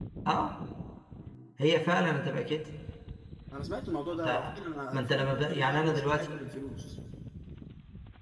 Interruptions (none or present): present